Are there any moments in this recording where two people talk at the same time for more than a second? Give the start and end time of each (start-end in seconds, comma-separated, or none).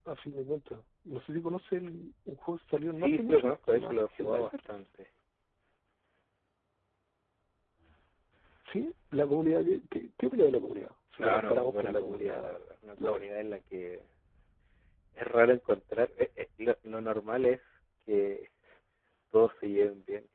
2.9-4.8, 11.2-12.6